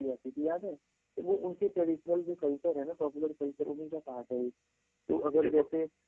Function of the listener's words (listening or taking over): listening